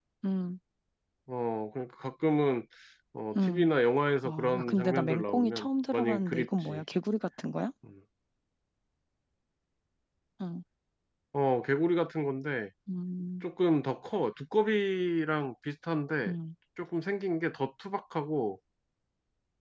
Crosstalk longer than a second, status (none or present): present